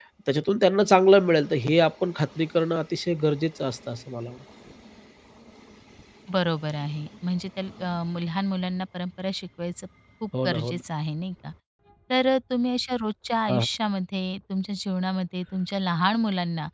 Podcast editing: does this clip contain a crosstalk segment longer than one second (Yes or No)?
No